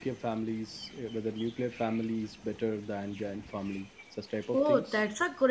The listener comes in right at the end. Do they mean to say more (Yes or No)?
Yes